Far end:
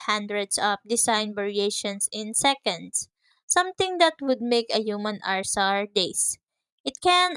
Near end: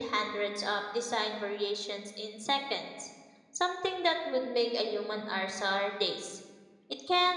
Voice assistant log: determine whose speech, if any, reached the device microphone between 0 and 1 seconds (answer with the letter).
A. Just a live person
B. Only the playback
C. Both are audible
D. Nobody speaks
B